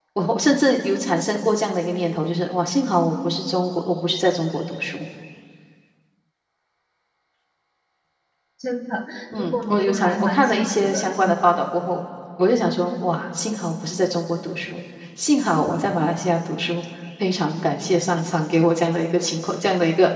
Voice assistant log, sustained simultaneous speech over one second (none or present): present